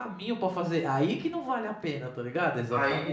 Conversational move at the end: taking over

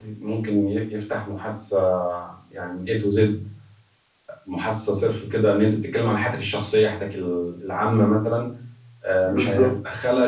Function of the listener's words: listening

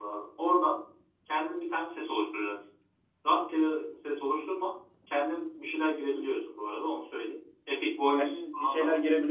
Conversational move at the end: taking over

